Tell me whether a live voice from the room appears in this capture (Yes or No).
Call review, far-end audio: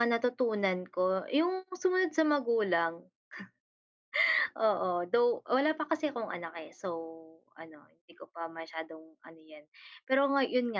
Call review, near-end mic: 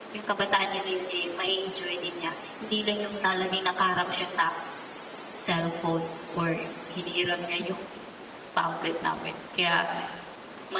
Yes